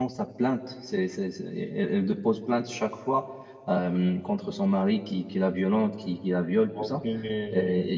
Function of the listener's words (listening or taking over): listening